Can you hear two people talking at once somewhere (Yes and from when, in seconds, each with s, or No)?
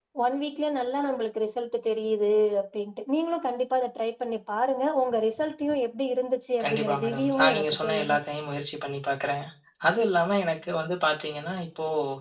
Yes, from 6.6 s